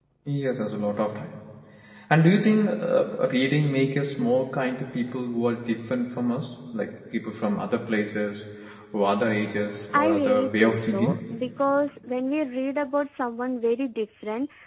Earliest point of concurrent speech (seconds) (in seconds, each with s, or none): 9.9 s